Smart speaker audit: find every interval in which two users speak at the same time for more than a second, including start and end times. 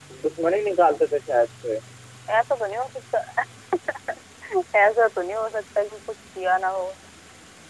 none

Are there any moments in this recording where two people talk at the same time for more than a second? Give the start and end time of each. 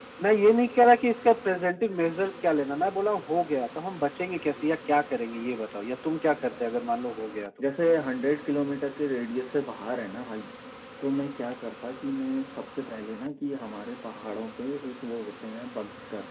none

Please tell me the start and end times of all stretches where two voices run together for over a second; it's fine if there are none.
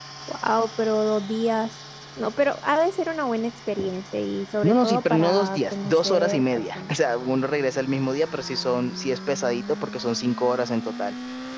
4.6-6.9

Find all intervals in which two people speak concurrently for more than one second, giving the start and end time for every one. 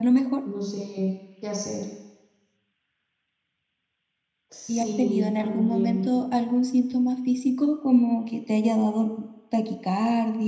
4.7-6.2

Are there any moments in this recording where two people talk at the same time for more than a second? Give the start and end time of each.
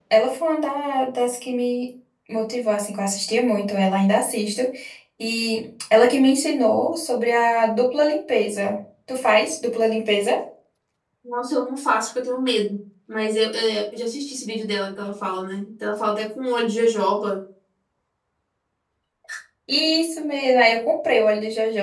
none

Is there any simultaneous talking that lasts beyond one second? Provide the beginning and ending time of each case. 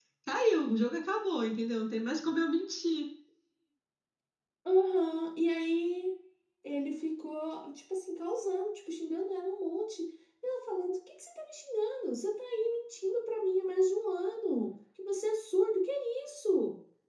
none

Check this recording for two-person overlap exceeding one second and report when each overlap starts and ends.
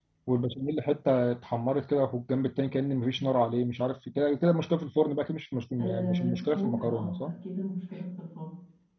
5.8-7.3

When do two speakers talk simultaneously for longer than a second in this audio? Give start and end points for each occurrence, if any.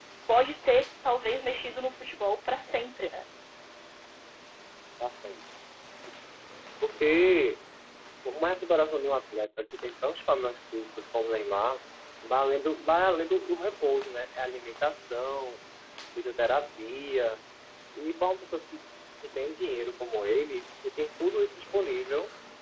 none

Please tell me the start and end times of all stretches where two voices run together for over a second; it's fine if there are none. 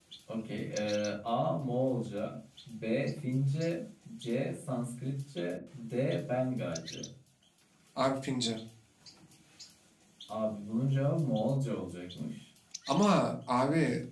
none

